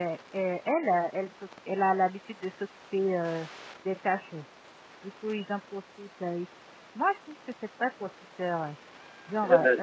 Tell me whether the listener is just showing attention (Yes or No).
Yes